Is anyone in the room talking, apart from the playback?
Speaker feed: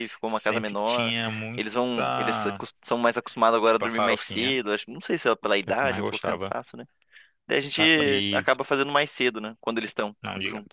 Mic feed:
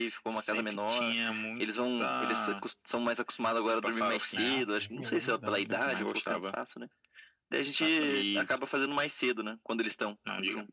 Yes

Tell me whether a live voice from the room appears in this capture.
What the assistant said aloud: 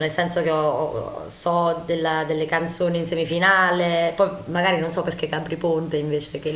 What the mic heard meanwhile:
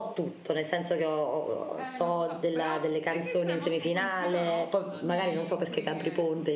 Yes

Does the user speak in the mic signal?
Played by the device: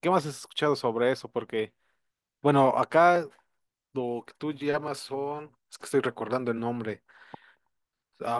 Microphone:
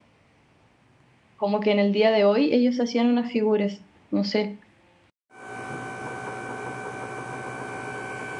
Yes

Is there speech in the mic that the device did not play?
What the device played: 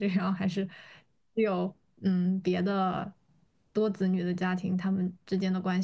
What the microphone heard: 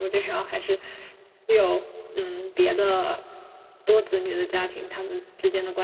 No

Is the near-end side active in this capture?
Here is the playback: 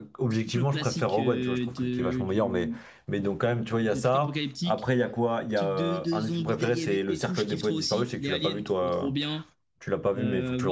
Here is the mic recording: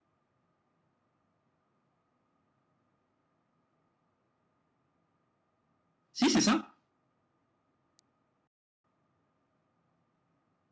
Yes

